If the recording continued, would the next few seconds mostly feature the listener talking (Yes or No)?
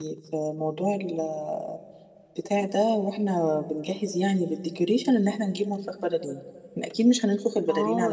Yes